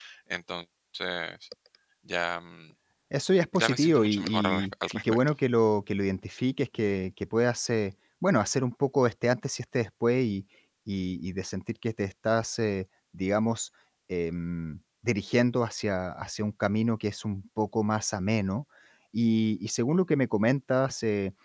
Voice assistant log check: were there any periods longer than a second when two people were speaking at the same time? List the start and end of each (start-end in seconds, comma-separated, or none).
3.5-5.2